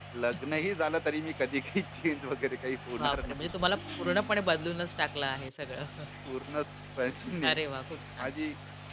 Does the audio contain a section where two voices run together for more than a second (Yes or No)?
No